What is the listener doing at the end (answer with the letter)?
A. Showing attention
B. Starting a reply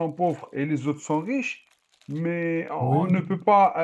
A